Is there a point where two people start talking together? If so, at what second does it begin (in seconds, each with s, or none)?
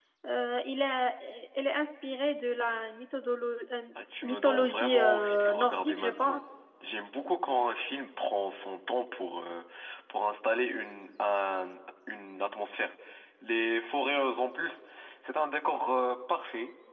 4.2 s